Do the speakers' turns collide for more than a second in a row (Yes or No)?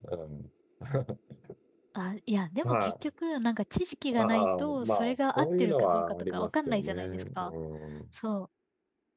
Yes